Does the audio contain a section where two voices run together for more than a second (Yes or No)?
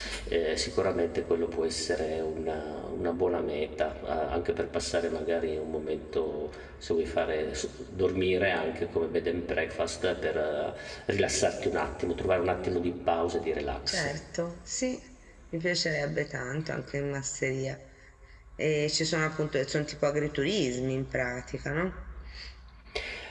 No